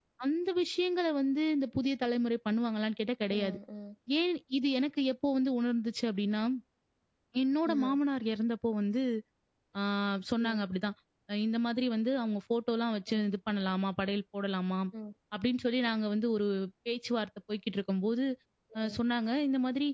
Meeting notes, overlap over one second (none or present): none